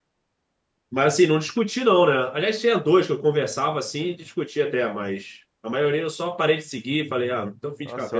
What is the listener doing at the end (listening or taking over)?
taking over